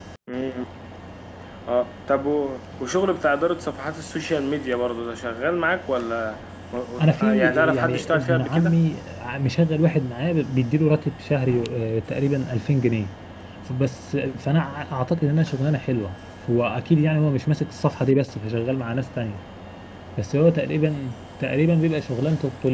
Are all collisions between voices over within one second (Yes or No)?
No